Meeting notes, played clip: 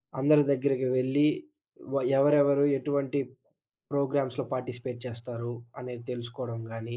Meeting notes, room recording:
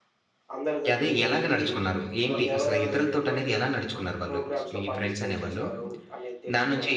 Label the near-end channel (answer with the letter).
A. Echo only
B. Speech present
B